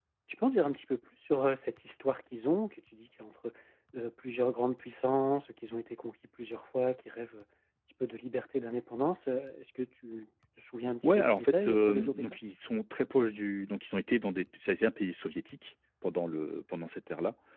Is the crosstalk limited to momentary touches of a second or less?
No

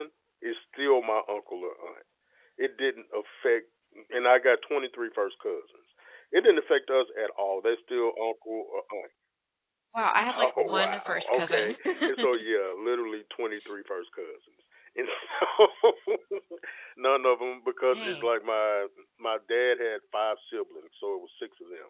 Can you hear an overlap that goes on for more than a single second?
Yes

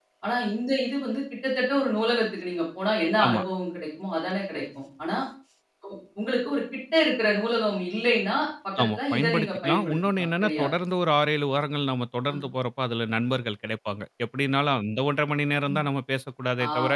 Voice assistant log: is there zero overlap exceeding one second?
No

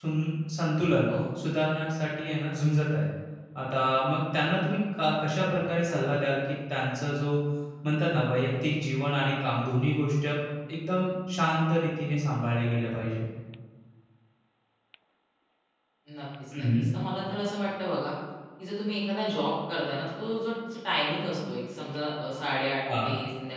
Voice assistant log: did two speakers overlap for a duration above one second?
No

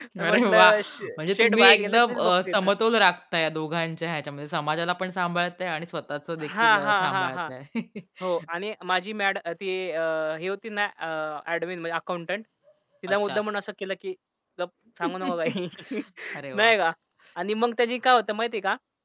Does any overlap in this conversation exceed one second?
Yes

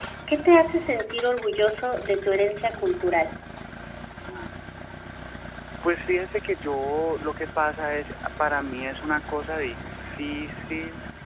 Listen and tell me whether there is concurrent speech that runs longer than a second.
No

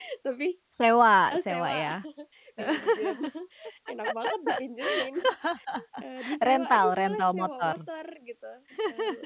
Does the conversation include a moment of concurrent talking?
Yes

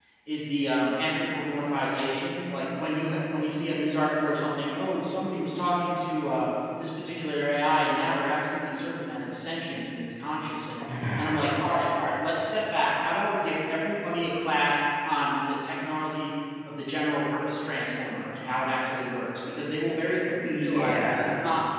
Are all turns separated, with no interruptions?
No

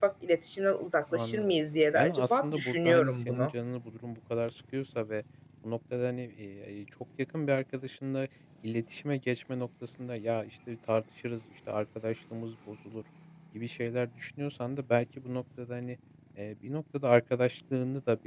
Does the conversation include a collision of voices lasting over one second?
Yes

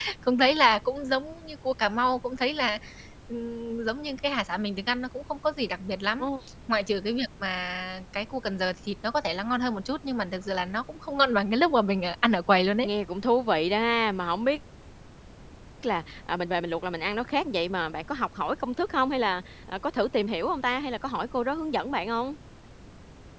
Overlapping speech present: No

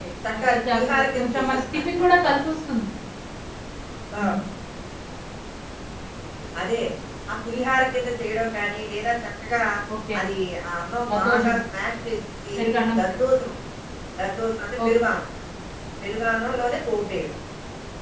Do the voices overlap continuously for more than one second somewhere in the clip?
Yes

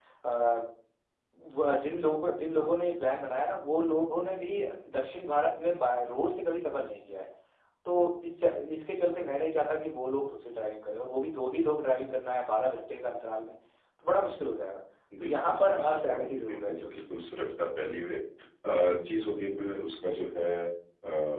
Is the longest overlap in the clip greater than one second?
Yes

